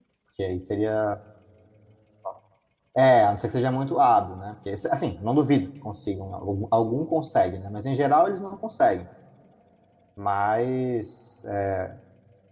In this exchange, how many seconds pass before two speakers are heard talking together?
none

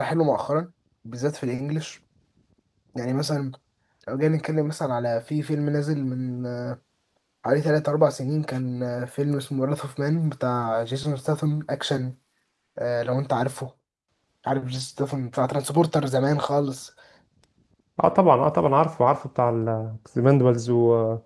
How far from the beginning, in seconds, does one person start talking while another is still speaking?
none

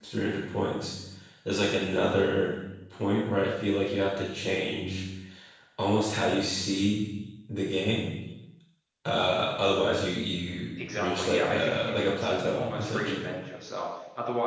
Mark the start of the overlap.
10.8 s

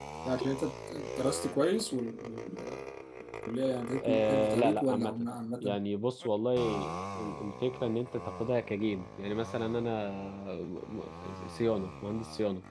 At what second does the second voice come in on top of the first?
4.0 s

